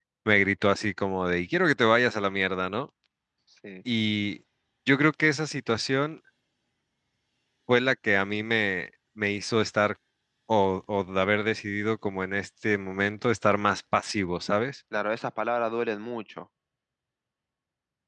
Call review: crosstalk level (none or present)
none